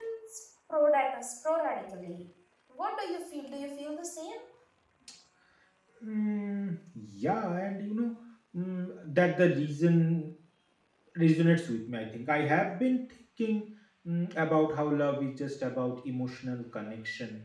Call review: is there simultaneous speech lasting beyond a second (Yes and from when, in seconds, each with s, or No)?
No